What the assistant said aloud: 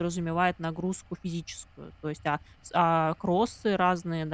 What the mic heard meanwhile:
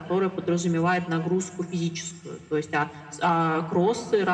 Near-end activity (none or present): none